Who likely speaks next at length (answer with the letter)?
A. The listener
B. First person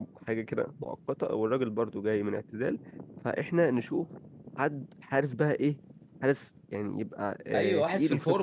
A